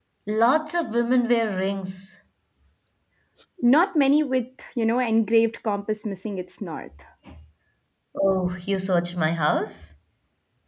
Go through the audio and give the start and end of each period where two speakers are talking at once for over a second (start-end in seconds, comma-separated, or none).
none